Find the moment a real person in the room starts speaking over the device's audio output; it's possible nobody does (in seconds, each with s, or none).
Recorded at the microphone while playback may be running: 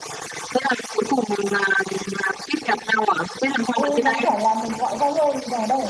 3.7 s